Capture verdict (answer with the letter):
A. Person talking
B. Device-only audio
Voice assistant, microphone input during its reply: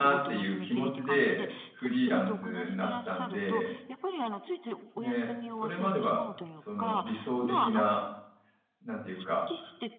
A